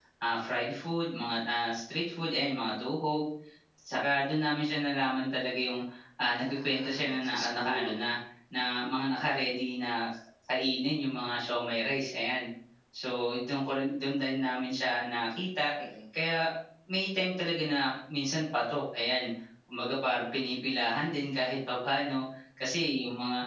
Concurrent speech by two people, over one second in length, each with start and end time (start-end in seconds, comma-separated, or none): 6.2-8.0